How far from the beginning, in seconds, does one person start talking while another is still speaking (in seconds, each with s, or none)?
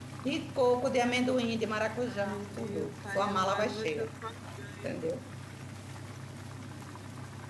2.1 s